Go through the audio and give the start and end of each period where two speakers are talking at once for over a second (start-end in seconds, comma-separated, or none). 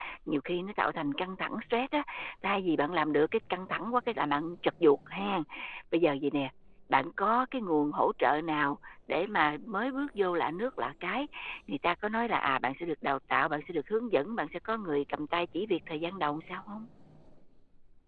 none